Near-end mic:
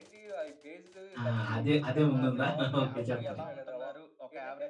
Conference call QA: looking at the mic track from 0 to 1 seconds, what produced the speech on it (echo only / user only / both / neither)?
echo only